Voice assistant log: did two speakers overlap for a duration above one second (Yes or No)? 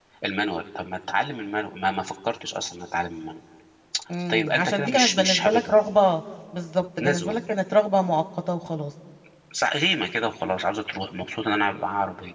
Yes